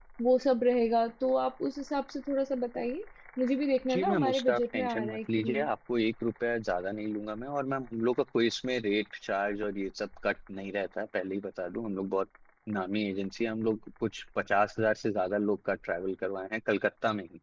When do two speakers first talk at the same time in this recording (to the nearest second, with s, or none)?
4 s